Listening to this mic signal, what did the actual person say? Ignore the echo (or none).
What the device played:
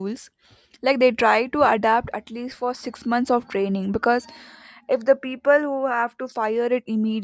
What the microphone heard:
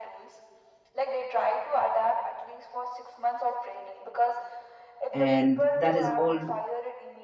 and that is all